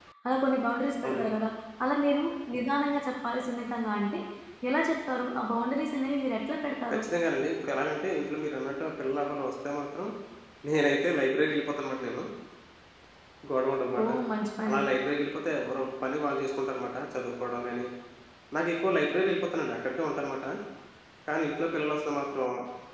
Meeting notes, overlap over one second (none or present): none